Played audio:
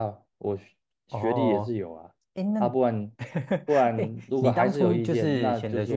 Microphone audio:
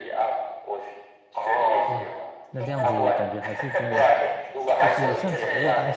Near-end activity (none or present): present